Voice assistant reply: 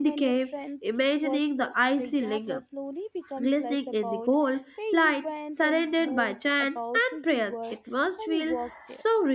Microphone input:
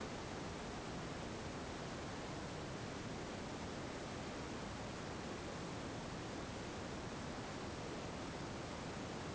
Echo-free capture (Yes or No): Yes